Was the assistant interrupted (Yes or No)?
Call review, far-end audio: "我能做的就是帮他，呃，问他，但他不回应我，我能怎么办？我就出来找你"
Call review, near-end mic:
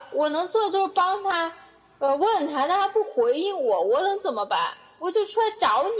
No